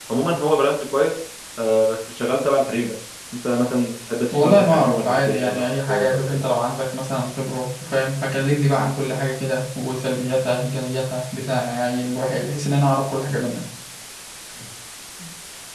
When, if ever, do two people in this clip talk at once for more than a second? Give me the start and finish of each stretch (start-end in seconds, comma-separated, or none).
4.3-6.4